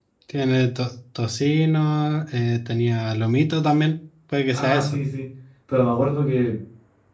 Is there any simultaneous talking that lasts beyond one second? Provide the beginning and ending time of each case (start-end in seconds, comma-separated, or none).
none